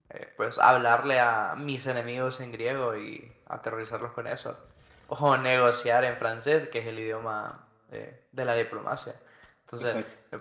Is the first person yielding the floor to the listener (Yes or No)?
No